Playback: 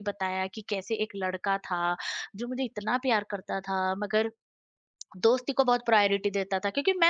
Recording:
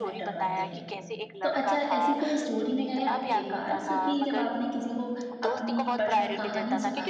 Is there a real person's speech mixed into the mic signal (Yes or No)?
Yes